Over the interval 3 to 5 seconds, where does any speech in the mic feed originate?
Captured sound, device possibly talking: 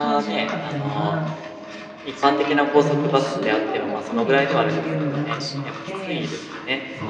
both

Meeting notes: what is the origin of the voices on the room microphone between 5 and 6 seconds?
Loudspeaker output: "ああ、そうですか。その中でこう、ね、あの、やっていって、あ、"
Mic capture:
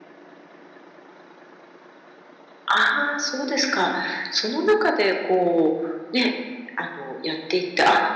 echo only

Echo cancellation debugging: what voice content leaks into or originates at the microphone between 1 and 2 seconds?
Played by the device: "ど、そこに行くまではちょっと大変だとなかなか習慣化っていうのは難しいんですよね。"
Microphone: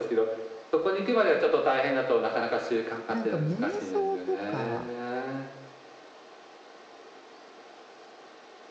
echo only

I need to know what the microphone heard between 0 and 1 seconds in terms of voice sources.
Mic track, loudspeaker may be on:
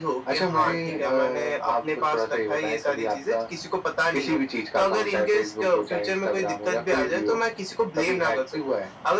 both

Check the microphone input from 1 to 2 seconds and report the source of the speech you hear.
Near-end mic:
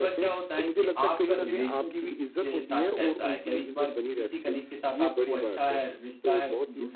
both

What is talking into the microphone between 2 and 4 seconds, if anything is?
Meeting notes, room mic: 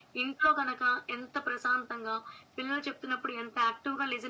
echo only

